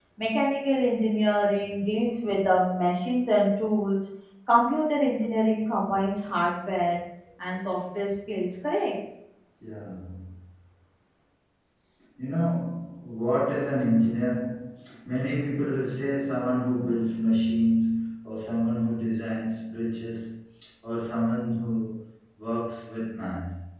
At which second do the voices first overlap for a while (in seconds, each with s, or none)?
none